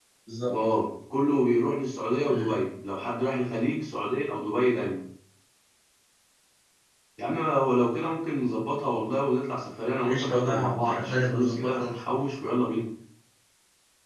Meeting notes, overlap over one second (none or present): present